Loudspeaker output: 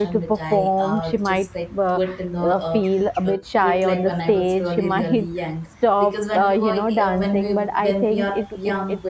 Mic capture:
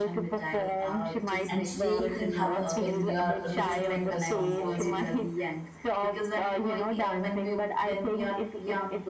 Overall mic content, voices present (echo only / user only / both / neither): both